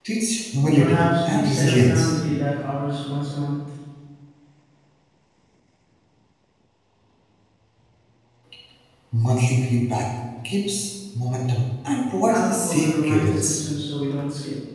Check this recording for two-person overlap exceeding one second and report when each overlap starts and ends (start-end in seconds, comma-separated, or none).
0.8-2.1, 12.3-13.6